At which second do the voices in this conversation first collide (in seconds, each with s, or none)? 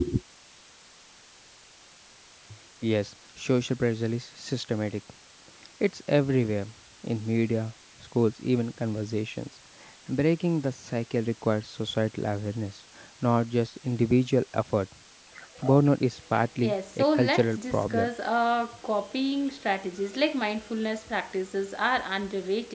16.6 s